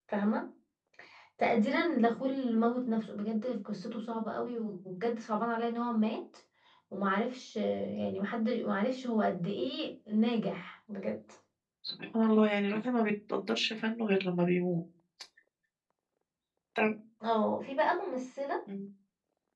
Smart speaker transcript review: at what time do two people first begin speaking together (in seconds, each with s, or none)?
none